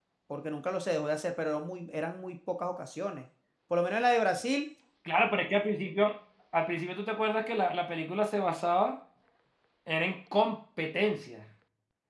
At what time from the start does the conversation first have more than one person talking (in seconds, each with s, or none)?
none